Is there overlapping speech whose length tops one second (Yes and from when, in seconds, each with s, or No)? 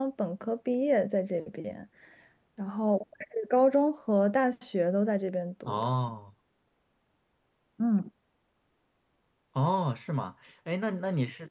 No